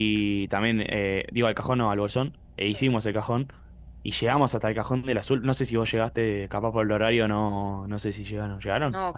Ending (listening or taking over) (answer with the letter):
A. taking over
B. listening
A